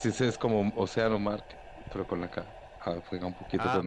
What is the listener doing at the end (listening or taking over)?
taking over